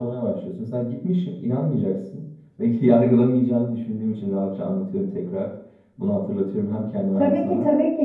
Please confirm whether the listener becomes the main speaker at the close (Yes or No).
Yes